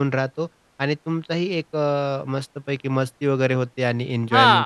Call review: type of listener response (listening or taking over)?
taking over